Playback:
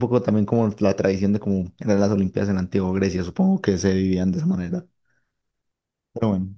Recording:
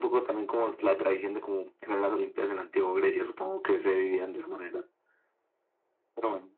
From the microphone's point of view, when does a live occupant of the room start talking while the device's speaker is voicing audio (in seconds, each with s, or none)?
0.6 s